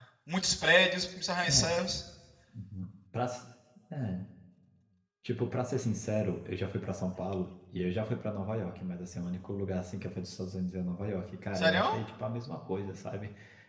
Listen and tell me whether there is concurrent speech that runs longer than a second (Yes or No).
No